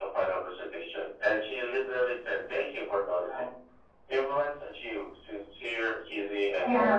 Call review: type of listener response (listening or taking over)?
taking over